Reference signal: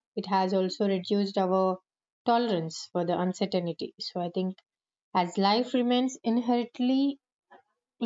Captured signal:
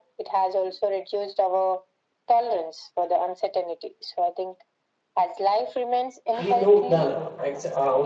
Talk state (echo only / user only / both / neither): both